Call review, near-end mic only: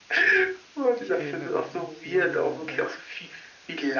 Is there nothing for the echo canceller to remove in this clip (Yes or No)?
No